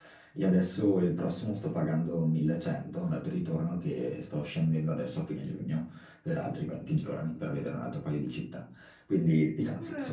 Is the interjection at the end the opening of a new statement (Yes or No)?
Yes